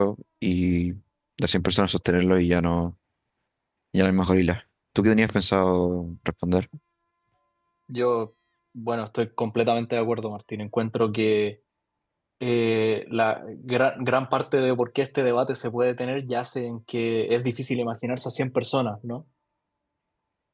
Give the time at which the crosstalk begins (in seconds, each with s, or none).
none